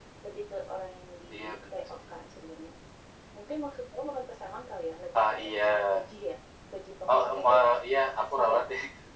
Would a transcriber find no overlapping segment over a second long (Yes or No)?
No